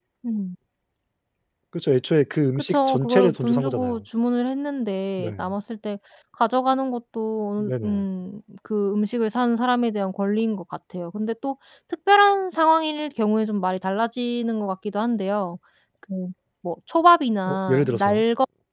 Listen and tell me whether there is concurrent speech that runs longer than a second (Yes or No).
Yes